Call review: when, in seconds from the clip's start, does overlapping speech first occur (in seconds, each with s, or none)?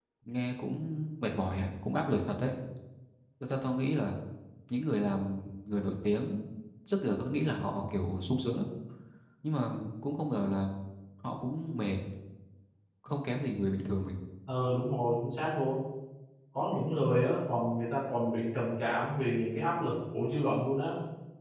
none